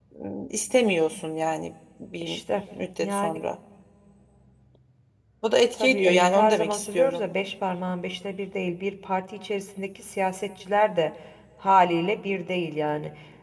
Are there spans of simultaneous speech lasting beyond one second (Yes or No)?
Yes